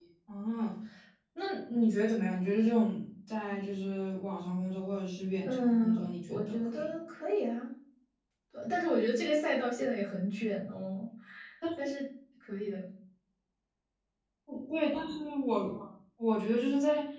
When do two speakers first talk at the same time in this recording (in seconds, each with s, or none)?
5.4 s